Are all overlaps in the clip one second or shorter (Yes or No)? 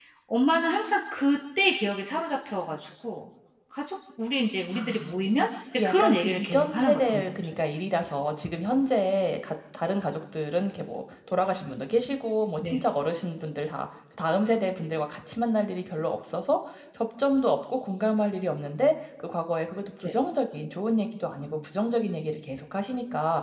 No